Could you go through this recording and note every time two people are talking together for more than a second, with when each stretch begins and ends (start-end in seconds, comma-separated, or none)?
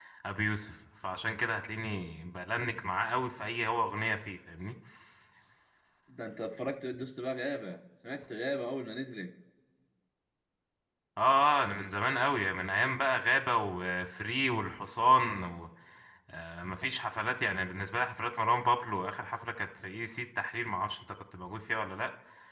none